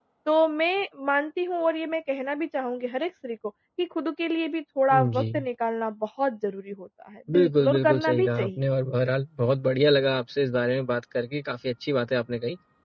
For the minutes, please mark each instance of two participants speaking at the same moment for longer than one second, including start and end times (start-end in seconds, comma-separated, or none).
7.3-8.6